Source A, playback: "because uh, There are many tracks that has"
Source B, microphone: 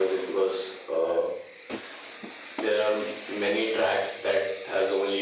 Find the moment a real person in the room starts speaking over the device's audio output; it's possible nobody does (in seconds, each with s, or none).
none